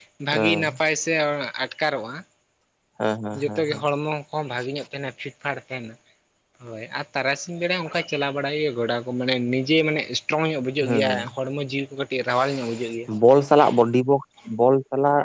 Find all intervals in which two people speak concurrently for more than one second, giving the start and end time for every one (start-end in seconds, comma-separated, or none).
none